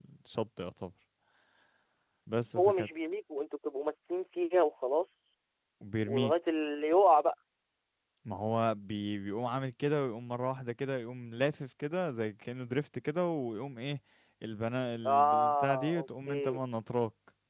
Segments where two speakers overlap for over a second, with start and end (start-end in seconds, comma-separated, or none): 15.1-16.6